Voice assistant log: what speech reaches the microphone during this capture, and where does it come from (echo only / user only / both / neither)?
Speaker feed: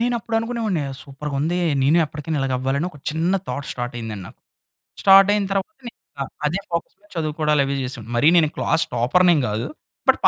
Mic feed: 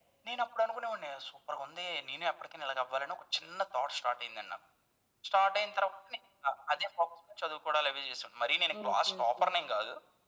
both